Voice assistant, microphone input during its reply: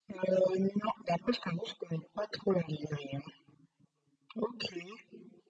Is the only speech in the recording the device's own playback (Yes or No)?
Yes